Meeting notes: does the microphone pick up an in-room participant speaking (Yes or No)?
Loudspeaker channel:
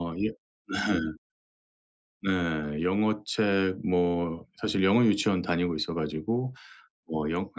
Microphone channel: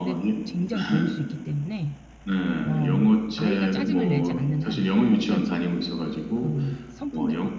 Yes